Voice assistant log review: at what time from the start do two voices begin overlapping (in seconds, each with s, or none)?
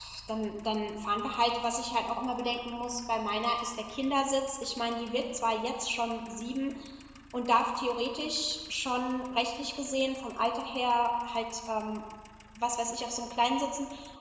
none